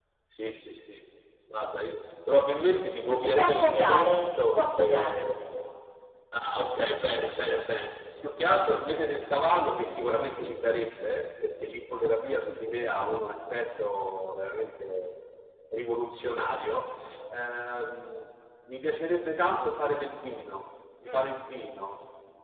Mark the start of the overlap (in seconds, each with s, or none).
3.2 s